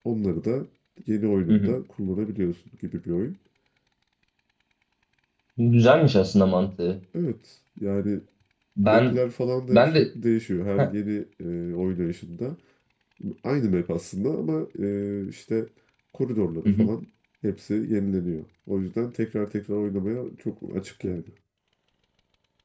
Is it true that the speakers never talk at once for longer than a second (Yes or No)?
Yes